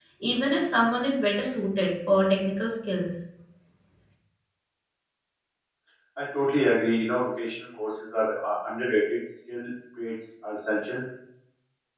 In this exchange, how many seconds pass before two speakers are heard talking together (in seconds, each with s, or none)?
none